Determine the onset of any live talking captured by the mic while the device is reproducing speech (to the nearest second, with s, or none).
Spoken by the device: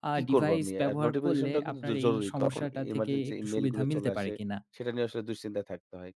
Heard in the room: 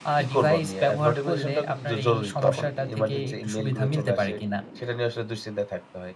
none